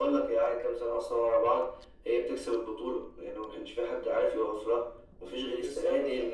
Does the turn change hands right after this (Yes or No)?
No